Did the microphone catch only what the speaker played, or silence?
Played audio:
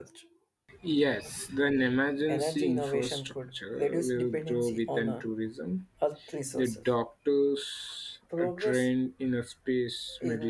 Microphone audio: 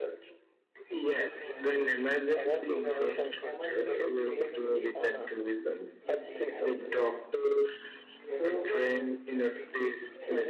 No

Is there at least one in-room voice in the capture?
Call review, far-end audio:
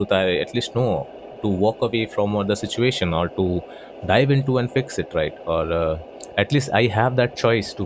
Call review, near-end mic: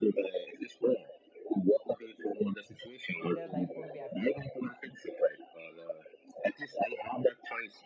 Yes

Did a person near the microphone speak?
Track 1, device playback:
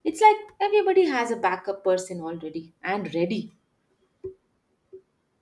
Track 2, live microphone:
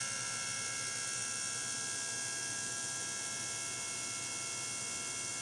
No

